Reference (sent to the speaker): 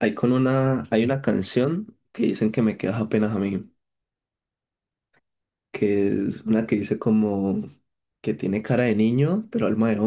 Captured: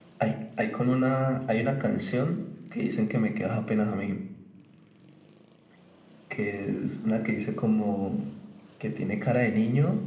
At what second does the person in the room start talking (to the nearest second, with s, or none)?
none